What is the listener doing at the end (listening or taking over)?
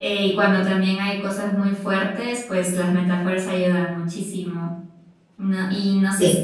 listening